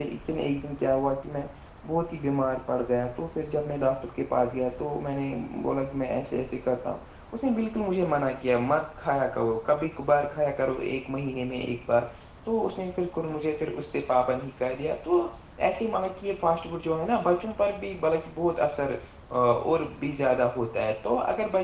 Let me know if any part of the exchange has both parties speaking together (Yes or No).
No